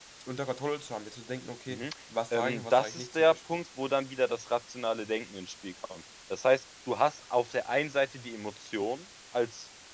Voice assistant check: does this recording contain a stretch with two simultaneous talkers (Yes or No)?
Yes